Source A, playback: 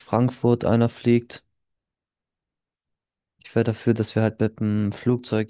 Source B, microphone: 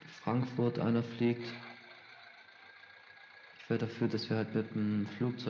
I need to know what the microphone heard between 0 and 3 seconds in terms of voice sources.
echo only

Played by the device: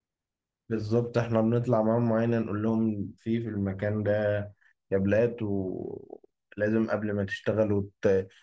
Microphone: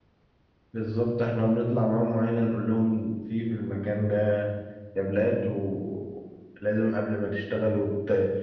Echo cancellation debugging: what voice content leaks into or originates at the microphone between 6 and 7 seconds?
echo only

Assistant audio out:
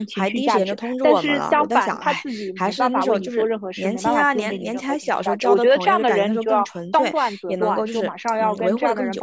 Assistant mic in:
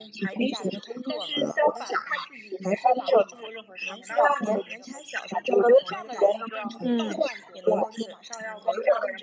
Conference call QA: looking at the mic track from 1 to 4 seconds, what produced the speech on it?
echo only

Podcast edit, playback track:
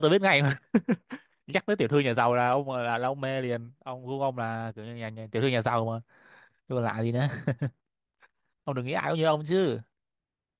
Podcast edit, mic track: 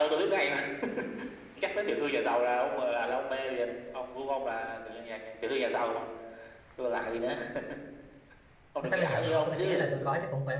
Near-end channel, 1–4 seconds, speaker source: echo only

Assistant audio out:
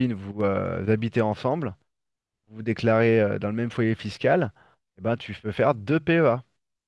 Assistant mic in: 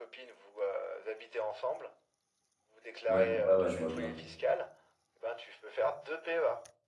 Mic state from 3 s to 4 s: both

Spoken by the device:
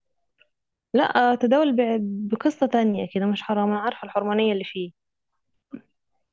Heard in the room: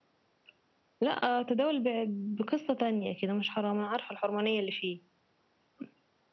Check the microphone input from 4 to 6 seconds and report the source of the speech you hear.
echo only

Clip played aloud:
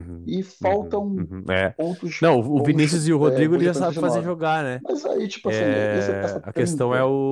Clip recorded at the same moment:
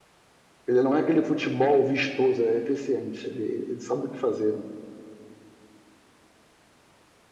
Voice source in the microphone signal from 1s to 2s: user only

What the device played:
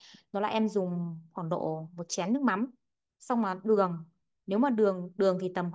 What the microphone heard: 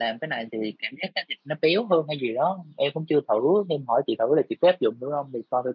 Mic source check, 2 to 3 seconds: user only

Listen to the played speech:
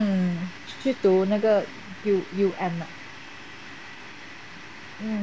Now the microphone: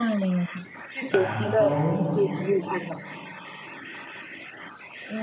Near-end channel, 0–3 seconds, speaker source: both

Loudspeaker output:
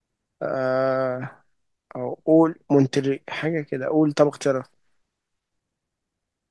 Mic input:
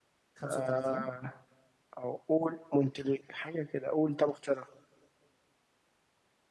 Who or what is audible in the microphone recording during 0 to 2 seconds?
both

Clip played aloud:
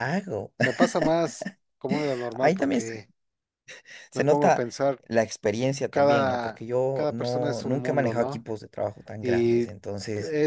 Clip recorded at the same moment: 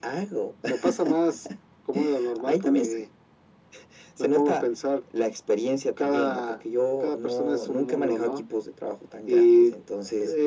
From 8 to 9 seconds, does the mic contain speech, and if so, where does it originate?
echo only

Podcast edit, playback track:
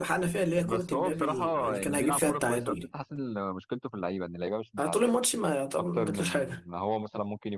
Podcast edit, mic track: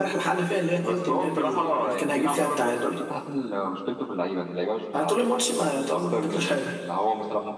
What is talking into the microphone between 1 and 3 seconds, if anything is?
echo only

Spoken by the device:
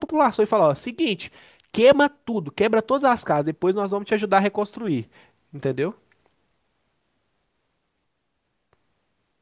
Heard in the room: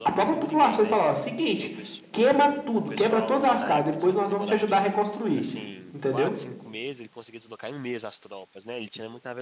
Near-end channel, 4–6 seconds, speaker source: both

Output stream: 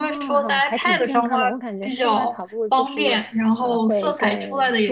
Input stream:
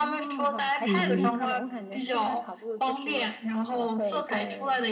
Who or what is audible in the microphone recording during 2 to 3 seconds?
echo only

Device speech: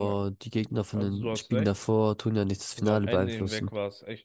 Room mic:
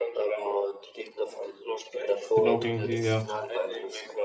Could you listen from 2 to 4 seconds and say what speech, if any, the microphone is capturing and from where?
both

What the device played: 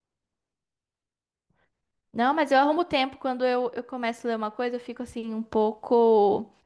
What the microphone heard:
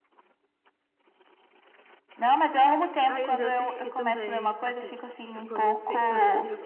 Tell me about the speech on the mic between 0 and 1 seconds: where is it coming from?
neither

